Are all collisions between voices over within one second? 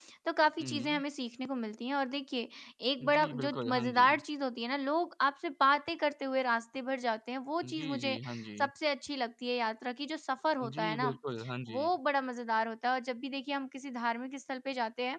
No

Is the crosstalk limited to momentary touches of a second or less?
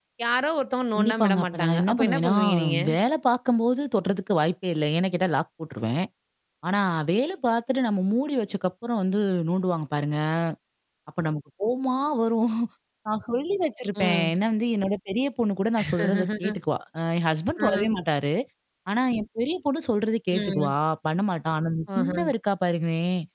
No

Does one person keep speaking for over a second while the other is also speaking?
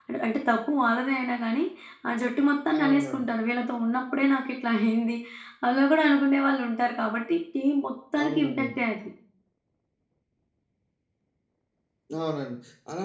No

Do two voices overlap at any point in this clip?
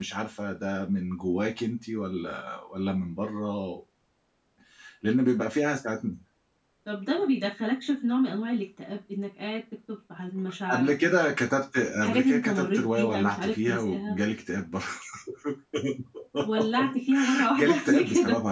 Yes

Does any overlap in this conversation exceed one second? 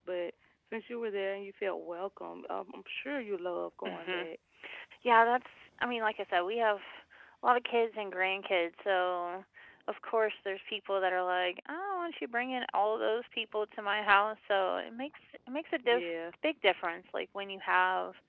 No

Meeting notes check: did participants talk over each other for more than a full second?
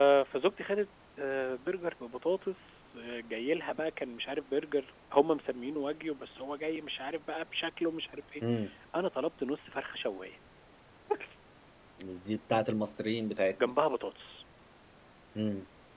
No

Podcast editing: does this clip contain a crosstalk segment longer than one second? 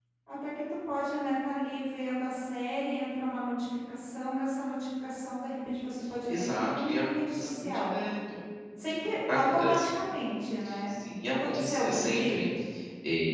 Yes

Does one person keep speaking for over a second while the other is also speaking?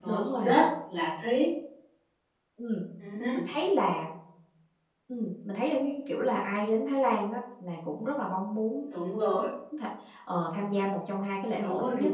No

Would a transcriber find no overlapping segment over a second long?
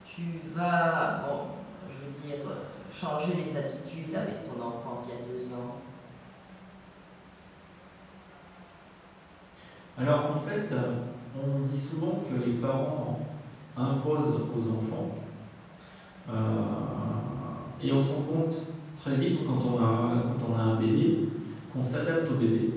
Yes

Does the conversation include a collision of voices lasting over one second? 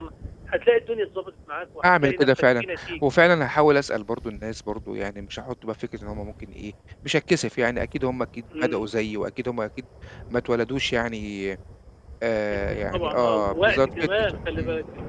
Yes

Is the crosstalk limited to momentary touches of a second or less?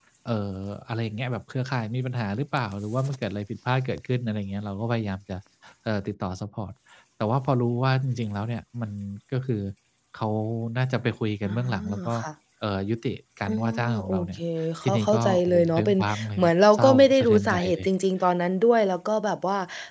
No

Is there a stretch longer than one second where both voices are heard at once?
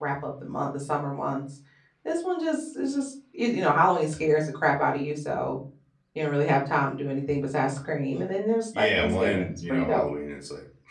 Yes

